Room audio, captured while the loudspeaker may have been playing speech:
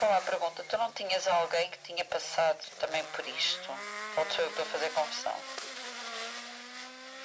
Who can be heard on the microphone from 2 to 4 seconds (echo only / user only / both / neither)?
echo only